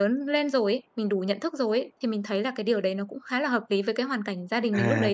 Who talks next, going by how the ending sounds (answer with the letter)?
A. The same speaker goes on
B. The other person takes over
B